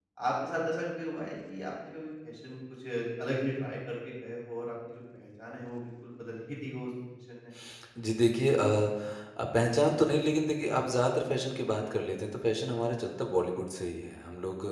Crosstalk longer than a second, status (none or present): none